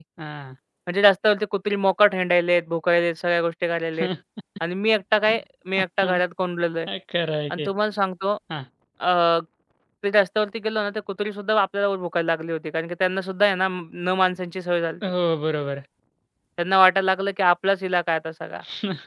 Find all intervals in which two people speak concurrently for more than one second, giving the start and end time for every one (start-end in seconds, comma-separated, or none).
none